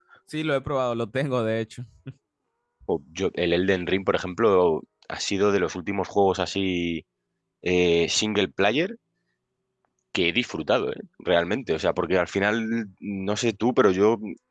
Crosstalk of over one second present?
No

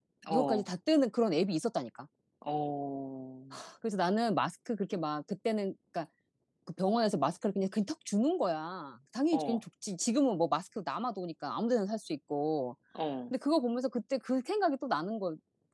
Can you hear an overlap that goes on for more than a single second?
No

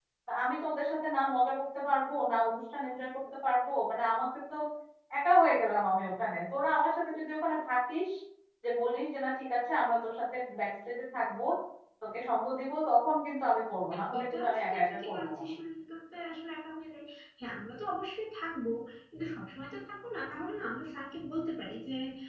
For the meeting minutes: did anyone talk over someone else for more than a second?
Yes, from 14.1 s

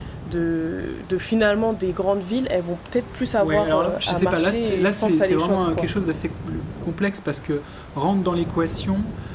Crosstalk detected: Yes, from 3.4 s

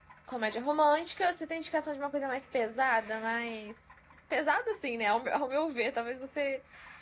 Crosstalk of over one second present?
No

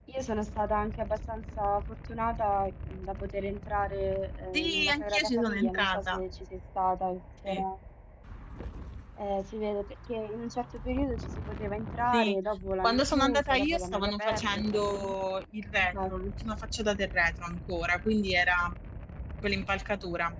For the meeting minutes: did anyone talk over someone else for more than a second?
Yes, from 4.5 s

